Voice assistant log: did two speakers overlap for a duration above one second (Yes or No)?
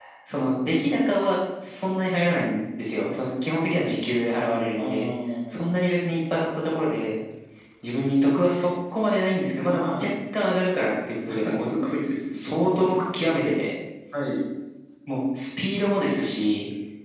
No